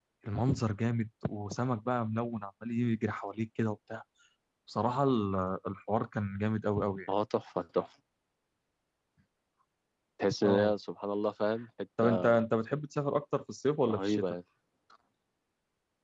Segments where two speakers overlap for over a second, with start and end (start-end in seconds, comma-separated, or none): none